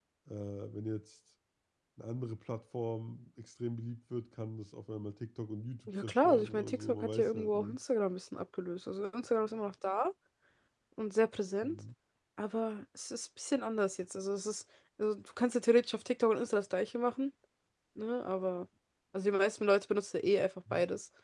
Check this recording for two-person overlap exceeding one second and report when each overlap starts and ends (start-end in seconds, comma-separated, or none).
5.9-7.8